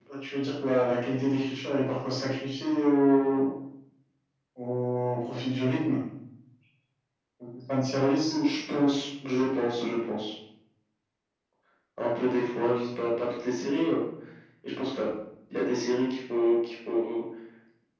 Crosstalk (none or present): none